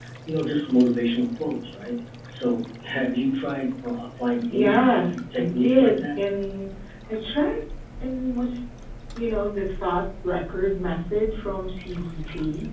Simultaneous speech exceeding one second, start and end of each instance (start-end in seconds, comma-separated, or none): 4.5-6.2